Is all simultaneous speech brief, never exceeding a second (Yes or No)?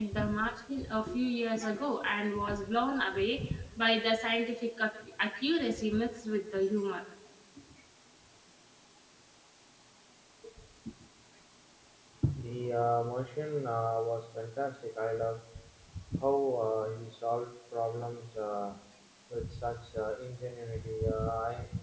Yes